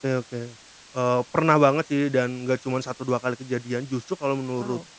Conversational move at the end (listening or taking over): listening